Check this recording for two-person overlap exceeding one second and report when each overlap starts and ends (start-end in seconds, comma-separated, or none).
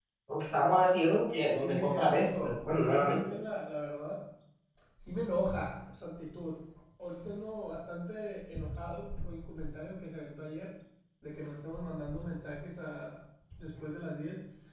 1.6-3.2